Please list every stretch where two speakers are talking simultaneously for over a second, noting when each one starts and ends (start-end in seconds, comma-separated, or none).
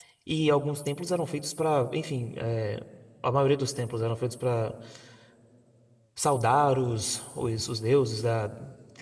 none